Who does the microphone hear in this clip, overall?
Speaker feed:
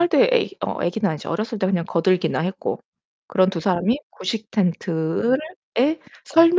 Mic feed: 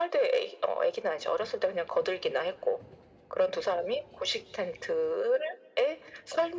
echo only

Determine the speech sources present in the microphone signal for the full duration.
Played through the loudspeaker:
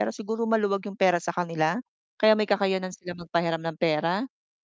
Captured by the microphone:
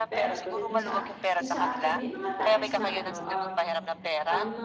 both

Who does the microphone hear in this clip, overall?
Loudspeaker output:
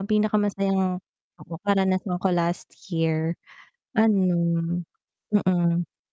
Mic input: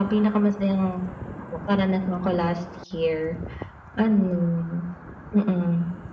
echo only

